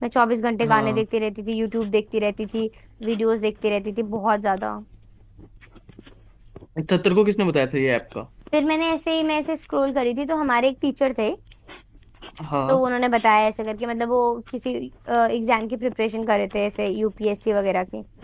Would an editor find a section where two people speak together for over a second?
No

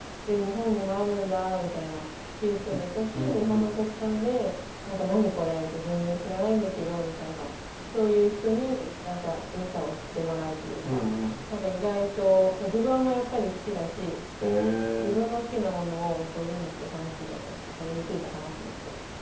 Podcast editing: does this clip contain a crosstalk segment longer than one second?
No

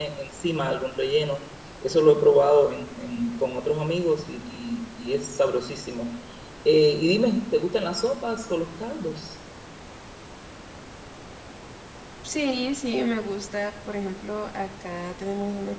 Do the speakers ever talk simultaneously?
No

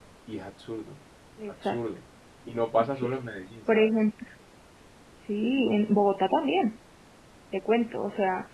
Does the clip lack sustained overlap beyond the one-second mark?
Yes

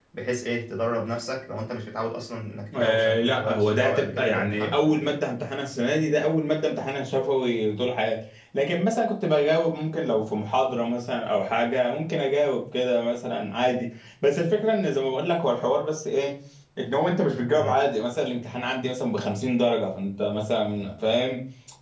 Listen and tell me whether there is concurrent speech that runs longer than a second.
Yes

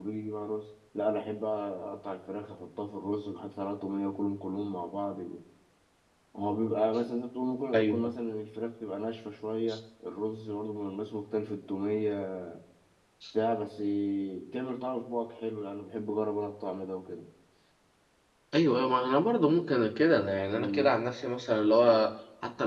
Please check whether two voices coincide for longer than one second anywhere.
No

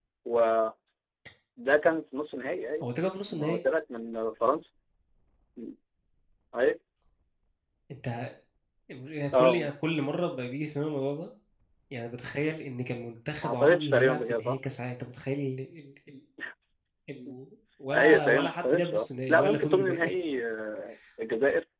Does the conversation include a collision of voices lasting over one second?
Yes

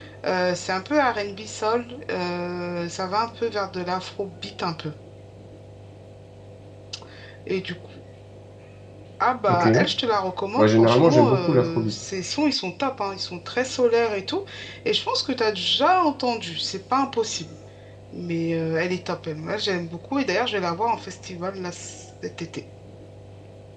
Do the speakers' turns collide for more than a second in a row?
Yes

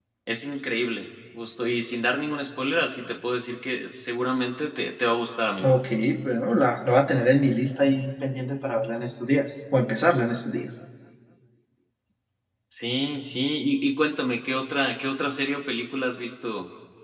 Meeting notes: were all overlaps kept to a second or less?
Yes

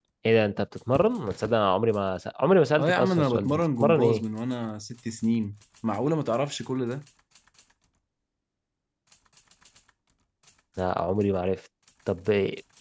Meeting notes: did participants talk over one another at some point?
Yes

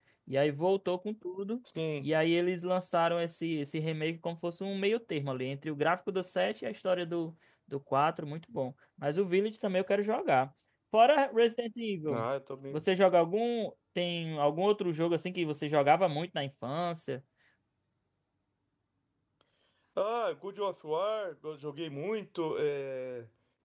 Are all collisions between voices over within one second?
Yes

